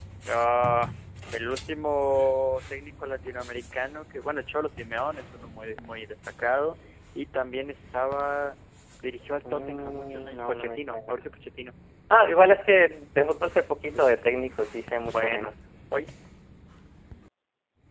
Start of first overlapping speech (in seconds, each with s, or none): 9.5 s